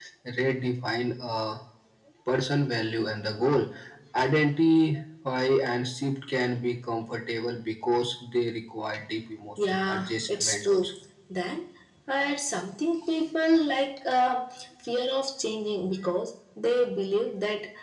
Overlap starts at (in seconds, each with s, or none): 9.6 s